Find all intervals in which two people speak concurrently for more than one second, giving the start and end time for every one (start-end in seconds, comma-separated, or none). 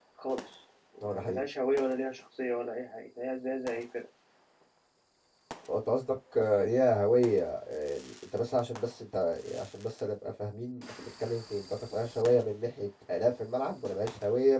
none